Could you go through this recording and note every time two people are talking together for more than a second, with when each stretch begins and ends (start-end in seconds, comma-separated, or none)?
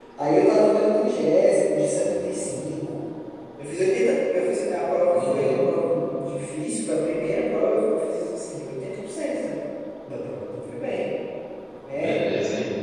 none